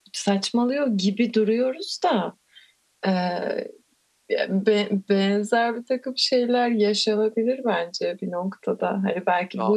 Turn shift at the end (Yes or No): No